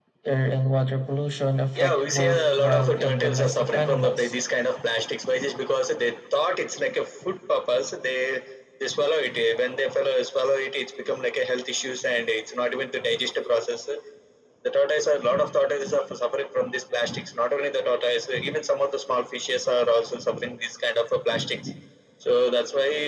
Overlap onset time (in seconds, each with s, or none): 1.8 s